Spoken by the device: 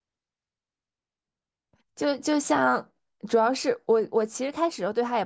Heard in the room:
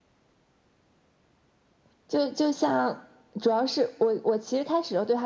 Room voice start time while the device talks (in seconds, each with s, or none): none